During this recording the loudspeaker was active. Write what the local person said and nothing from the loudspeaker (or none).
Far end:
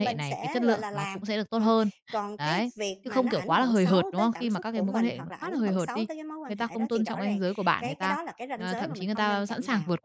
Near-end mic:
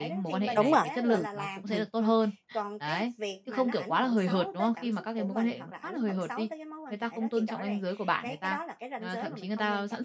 Đúng rồi, ừm, ừm,